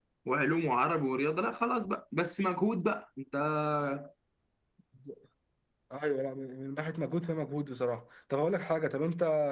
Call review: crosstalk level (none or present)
none